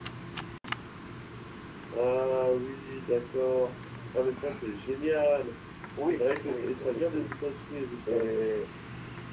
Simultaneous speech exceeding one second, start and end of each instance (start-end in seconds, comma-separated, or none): 6.0-7.3